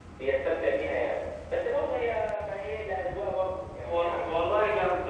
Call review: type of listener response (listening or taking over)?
taking over